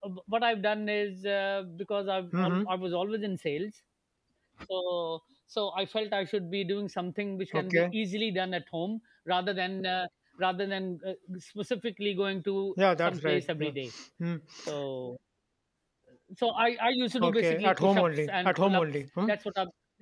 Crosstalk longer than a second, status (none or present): present